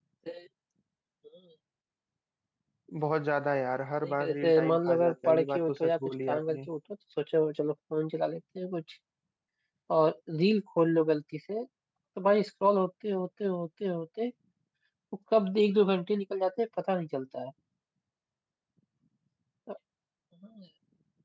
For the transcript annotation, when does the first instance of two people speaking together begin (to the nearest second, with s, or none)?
4 s